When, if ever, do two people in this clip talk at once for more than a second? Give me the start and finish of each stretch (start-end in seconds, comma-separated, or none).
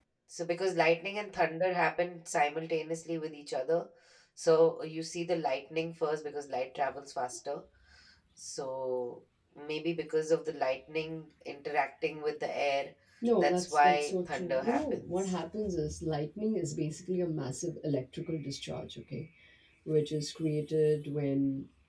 13.4-15.3